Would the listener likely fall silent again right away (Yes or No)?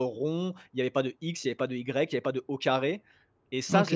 No